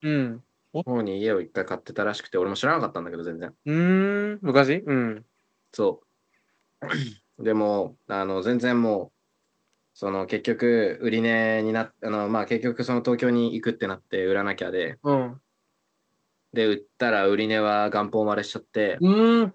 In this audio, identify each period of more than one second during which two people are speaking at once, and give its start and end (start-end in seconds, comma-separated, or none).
none